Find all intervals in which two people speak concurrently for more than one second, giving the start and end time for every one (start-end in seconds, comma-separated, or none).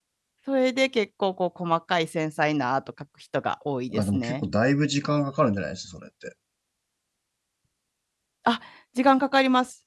none